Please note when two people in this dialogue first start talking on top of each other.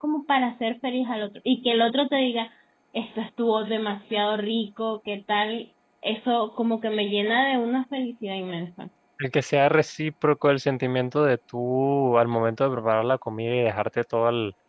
none

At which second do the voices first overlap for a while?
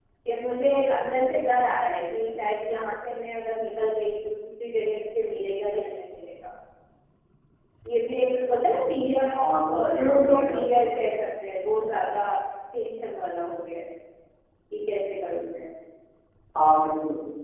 9.4 s

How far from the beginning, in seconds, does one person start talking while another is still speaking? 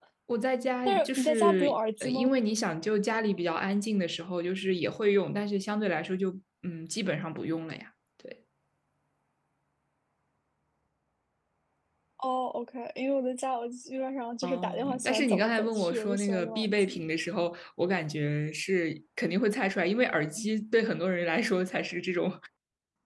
0.8 s

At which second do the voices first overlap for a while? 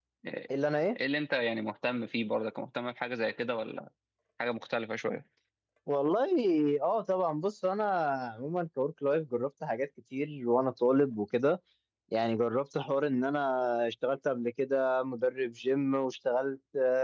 none

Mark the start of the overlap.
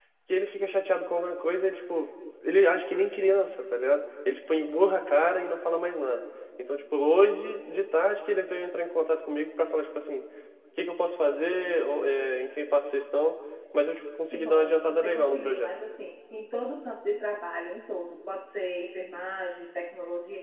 14.3 s

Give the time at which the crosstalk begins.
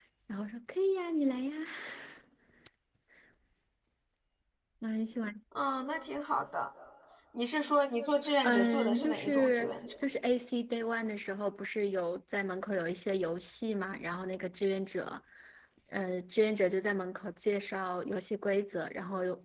8.4 s

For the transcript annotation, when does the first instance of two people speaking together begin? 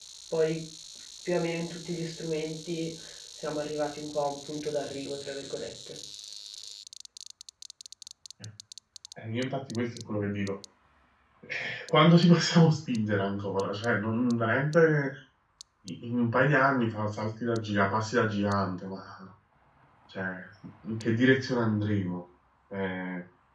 none

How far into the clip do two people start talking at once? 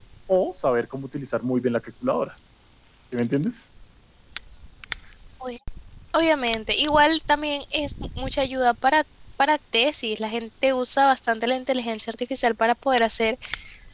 none

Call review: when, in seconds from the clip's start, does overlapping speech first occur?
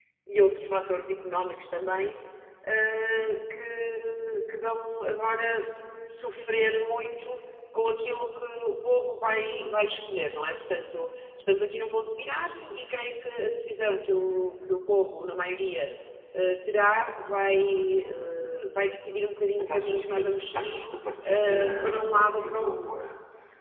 19.6 s

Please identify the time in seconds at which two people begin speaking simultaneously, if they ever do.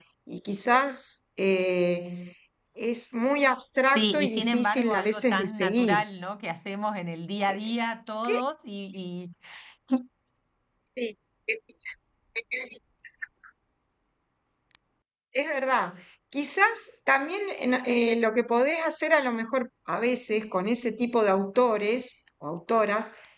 3.9 s

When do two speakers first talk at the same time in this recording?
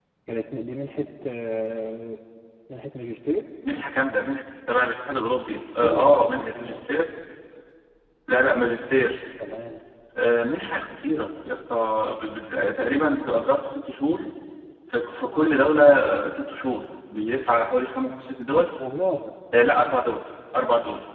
5.5 s

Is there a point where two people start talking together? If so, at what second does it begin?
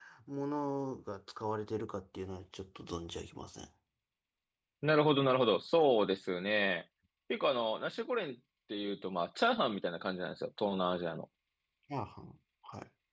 none

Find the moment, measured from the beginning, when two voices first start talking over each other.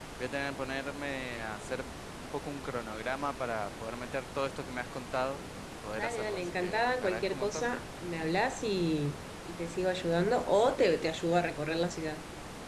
6.0 s

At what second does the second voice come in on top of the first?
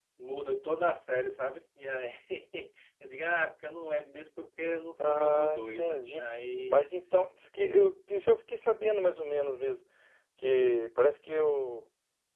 5.0 s

